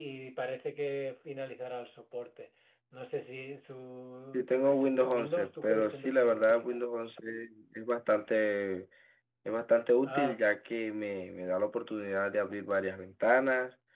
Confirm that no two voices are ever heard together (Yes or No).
No